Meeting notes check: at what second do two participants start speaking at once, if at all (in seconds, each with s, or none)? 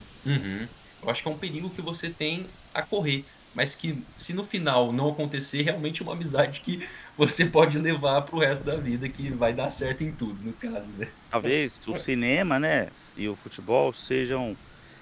none